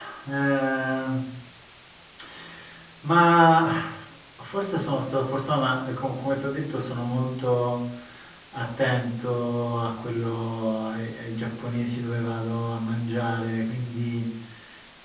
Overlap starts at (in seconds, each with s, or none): none